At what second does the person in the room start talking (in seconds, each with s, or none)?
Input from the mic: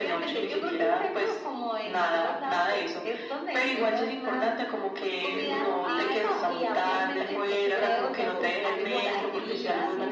5.3 s